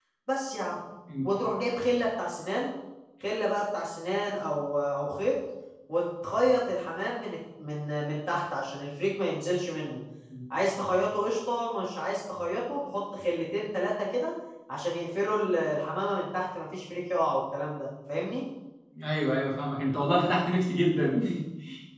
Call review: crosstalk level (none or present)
none